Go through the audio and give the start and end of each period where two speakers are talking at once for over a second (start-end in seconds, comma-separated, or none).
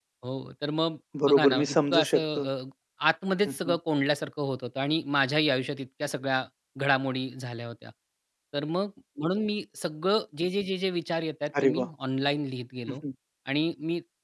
1.3-2.5